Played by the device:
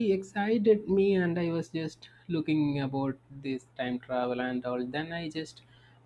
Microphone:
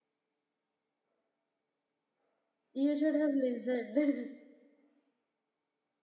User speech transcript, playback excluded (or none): You should have listened.